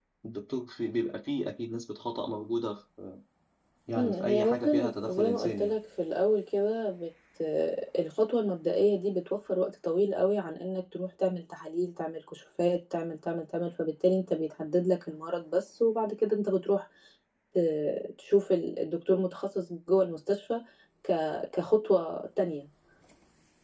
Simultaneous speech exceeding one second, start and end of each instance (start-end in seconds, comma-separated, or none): 4.0-5.7